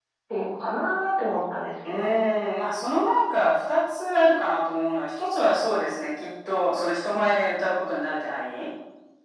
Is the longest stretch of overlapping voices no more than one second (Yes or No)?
Yes